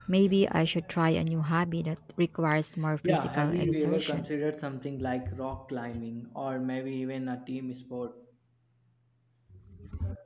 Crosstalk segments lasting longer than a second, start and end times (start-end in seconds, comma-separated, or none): 3.0-4.3